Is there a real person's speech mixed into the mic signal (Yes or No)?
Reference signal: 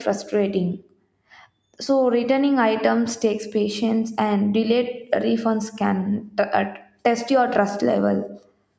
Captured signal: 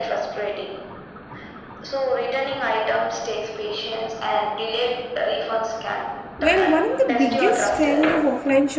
Yes